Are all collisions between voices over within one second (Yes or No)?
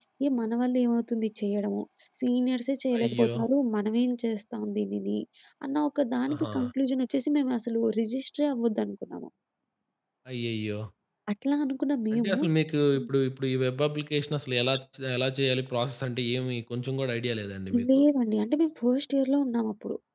Yes